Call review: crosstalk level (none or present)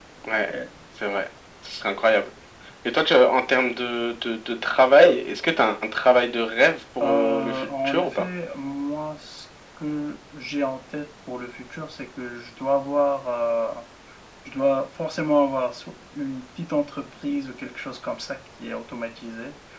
present